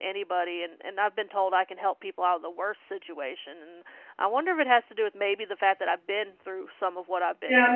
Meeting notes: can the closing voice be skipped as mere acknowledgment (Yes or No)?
No